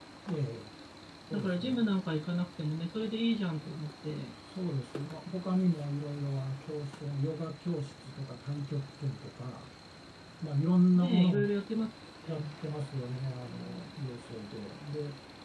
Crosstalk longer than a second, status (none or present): none